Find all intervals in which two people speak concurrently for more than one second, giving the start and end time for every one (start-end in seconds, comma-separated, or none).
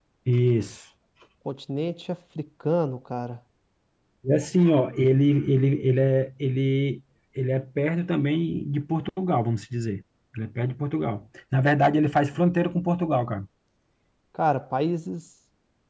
none